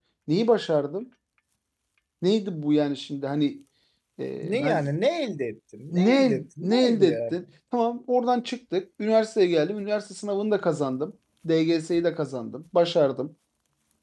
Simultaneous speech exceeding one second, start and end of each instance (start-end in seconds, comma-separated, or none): 5.9-7.4